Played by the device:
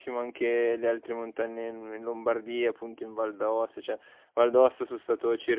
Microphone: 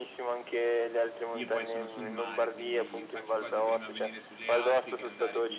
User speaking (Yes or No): Yes